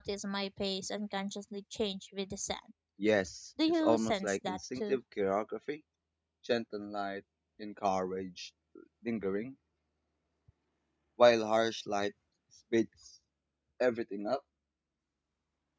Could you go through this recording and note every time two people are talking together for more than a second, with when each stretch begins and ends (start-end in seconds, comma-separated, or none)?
3.7-5.0